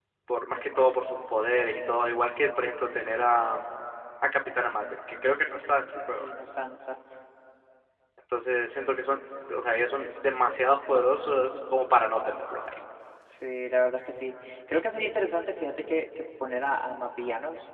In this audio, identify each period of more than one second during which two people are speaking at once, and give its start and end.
none

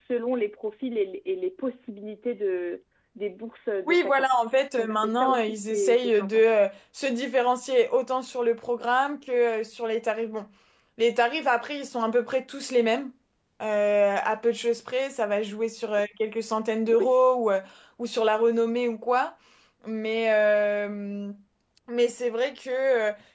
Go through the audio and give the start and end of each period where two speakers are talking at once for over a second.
4.8-6.4

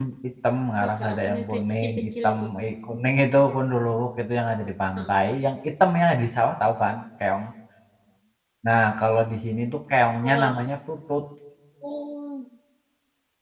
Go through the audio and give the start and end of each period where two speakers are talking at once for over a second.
0.9-2.4

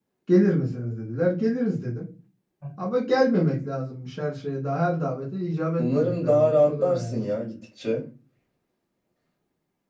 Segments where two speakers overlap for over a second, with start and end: 5.8-7.3

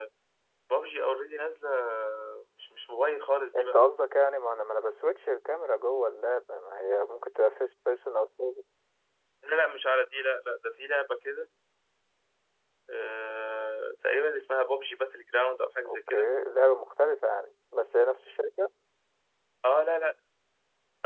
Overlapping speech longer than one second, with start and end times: none

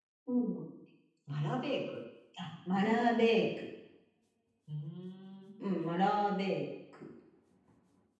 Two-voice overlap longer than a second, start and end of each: none

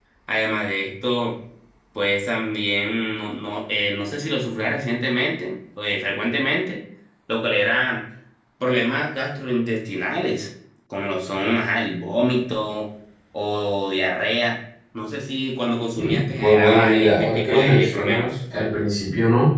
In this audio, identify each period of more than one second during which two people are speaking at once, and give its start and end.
15.9-18.3

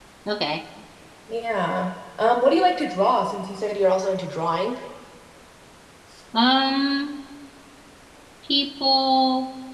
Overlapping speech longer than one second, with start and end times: none

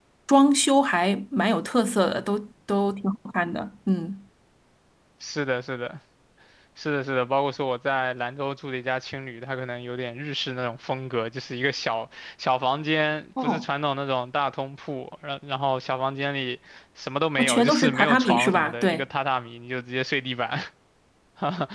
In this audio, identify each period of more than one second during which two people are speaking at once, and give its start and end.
17.4-19.0

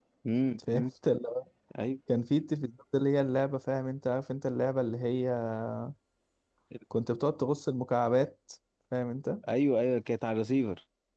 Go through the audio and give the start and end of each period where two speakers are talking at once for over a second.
none

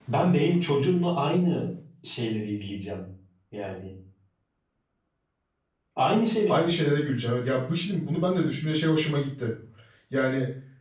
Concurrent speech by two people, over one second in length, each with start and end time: none

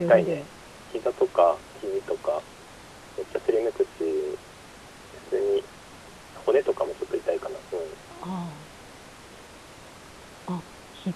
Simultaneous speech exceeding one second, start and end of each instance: none

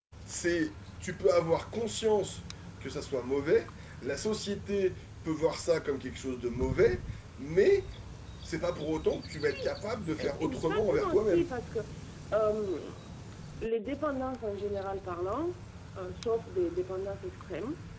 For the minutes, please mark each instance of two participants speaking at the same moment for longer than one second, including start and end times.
10.2-11.5

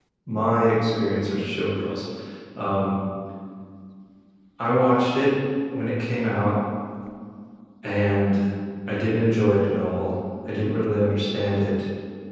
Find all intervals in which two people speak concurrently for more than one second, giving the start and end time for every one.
none

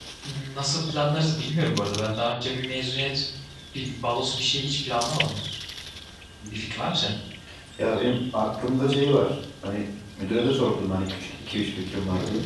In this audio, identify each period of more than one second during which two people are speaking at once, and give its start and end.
none

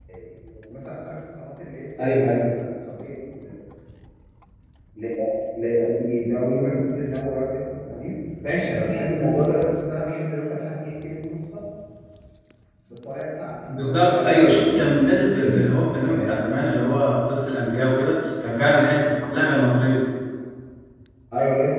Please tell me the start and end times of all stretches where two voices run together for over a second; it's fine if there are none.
13.8-15.7

